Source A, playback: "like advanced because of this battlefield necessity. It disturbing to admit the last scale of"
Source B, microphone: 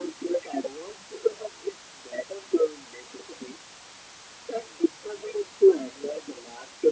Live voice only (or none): none